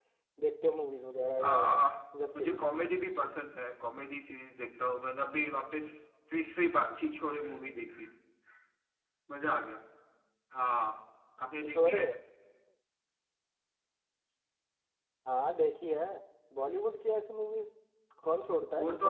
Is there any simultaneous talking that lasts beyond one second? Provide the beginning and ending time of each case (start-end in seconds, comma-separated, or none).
none